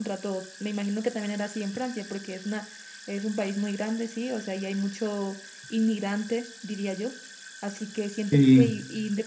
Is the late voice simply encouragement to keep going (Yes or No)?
Yes